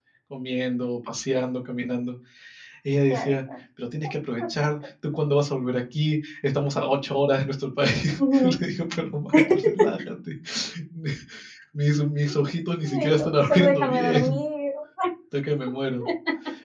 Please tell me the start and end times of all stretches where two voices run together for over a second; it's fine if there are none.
13.0-14.4

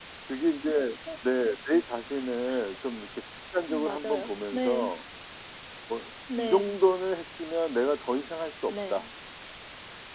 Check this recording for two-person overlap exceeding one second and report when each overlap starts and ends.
3.7-4.9

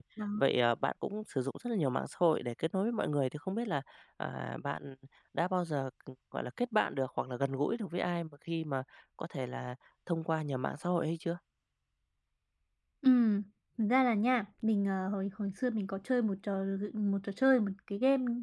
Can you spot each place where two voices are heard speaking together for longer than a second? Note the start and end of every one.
none

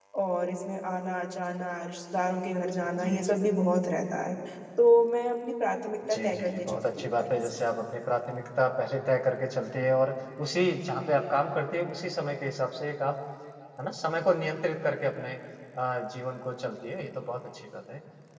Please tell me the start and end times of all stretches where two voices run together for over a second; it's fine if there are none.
6.1-7.6

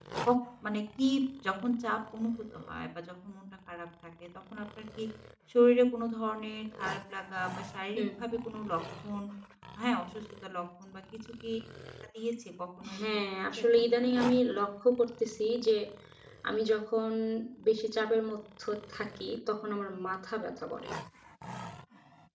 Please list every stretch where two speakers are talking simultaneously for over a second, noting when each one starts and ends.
12.9-14.3

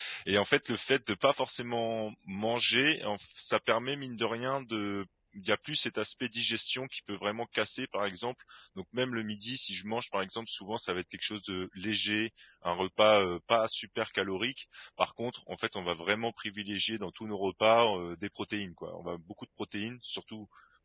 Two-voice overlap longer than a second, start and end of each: none

